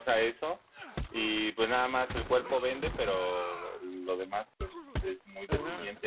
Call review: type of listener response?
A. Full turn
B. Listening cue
A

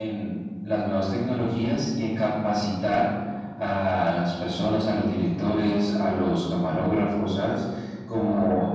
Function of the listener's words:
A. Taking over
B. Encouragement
B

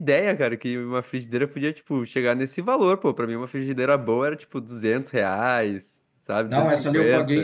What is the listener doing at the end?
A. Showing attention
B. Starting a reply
B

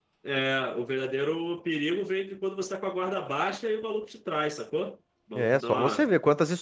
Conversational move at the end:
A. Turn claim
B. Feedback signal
A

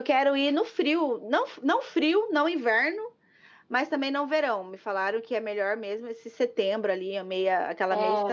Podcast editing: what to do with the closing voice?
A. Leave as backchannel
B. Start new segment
B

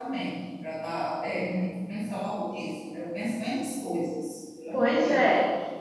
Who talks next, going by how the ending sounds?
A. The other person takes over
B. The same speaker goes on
A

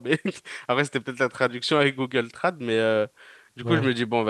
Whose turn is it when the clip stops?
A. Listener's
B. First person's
B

